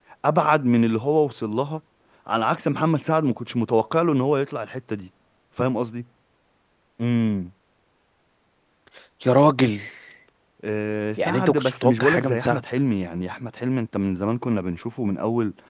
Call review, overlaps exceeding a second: present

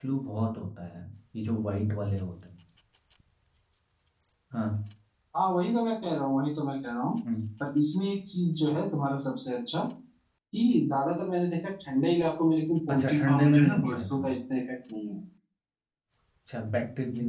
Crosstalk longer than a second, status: present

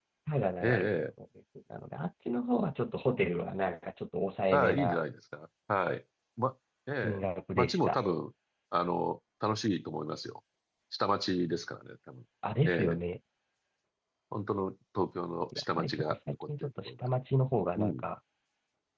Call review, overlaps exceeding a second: present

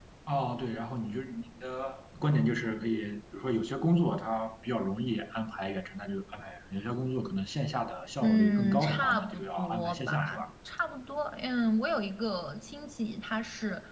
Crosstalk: present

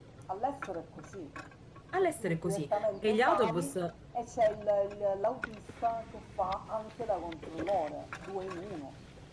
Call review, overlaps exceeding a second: present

